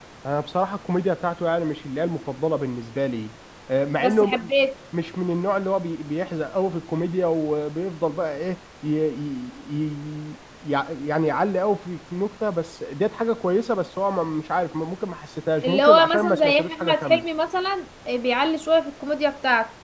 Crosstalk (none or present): present